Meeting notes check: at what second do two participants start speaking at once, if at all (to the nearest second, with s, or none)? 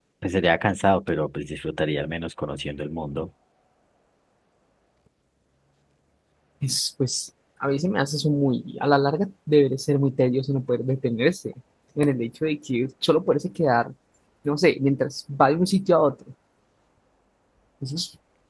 none